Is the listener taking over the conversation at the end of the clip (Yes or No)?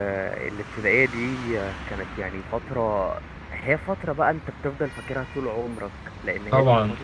No